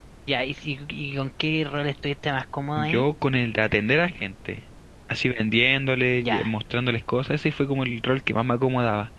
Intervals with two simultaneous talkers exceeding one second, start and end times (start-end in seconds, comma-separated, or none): none